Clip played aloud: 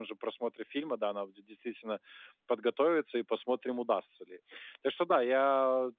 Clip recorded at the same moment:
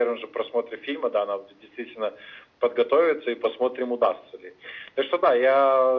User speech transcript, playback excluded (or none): none